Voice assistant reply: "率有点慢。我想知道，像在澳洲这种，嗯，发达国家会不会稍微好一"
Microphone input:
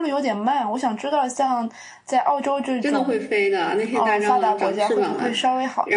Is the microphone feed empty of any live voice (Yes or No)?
No